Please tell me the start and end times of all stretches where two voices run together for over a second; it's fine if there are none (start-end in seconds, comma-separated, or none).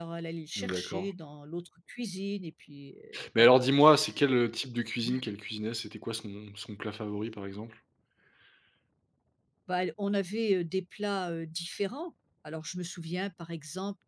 none